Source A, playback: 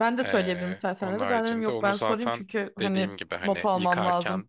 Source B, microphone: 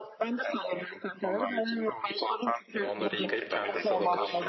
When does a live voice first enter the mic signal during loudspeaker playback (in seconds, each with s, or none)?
2.7 s